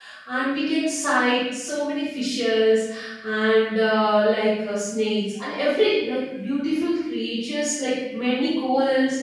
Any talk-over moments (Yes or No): No